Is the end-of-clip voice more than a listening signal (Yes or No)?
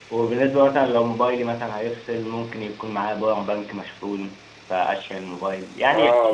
Yes